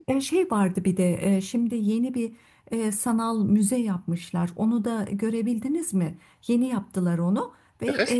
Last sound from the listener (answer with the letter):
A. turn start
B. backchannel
B